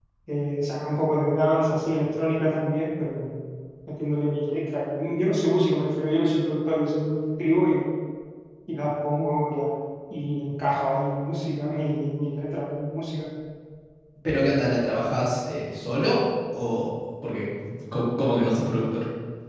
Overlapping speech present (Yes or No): No